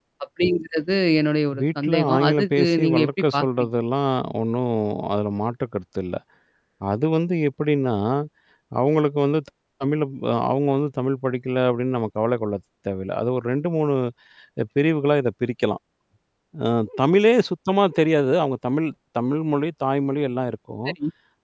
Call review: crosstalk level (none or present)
present